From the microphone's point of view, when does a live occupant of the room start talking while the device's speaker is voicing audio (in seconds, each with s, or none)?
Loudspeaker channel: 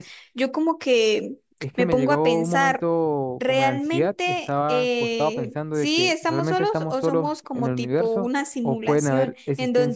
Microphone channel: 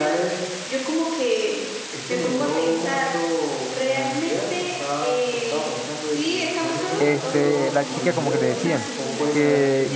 7.0 s